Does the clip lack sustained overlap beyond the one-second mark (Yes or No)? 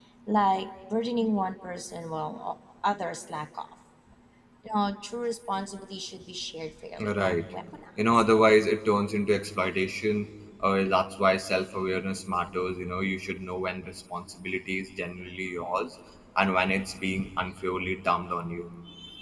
Yes